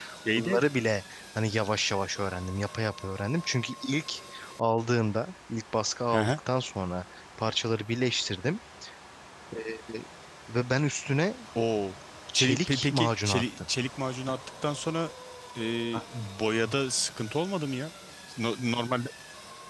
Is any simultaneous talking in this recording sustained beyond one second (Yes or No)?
Yes